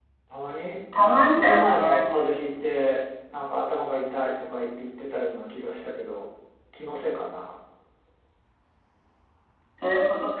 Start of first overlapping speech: 1.0 s

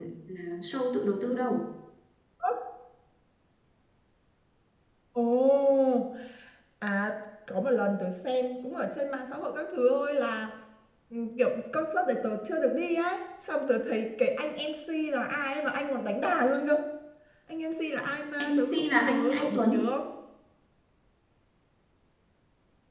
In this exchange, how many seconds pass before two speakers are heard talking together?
18.4 s

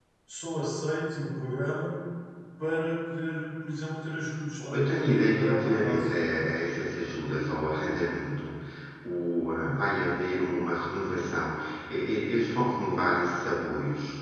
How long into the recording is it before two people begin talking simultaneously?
4.6 s

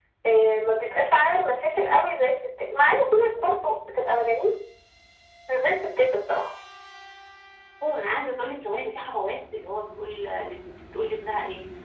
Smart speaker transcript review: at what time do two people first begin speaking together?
none

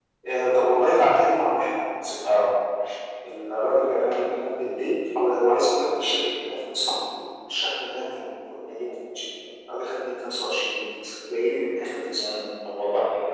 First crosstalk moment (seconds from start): none

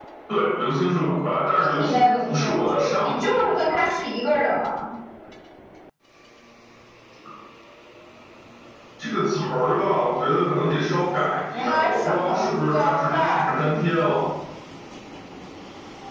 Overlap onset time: 1.5 s

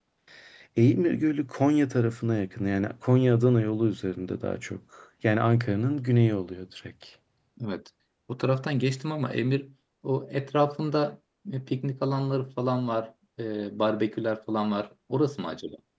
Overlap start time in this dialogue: none

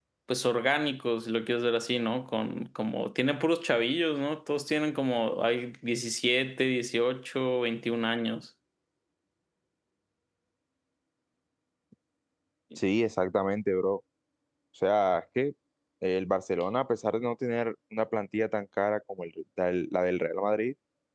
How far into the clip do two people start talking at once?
none

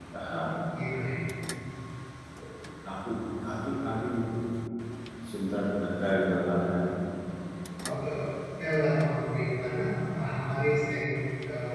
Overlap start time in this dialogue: none

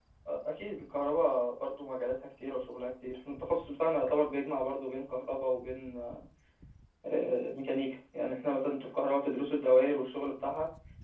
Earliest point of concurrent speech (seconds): none

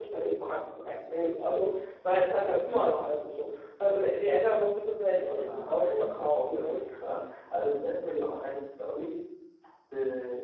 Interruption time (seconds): 5.2 s

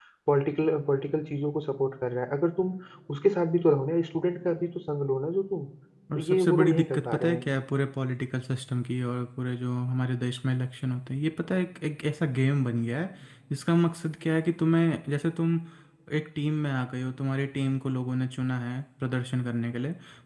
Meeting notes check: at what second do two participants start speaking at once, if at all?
6.1 s

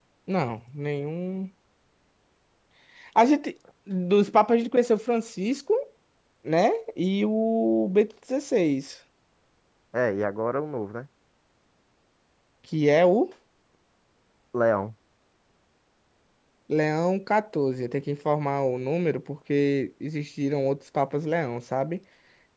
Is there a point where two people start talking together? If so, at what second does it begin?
none

